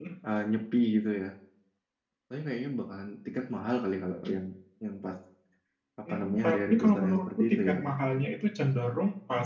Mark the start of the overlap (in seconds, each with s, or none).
6.1 s